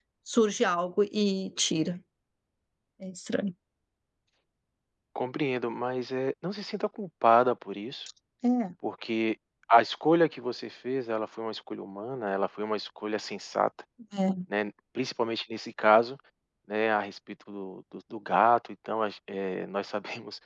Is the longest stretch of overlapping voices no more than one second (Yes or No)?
Yes